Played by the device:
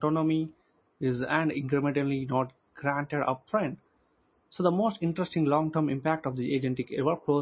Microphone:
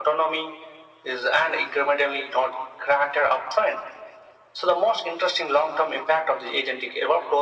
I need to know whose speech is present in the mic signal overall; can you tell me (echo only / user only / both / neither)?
echo only